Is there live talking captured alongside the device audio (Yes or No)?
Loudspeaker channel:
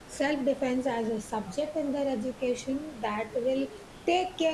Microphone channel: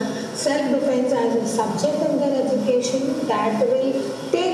No